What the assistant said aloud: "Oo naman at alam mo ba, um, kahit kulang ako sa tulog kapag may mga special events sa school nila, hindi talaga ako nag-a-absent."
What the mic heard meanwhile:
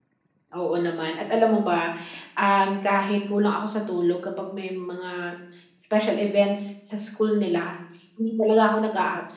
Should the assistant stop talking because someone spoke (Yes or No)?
No